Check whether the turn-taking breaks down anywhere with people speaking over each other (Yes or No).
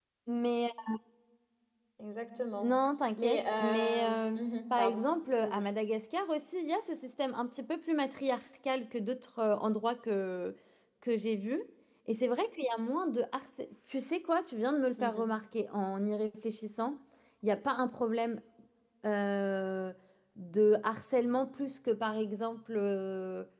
Yes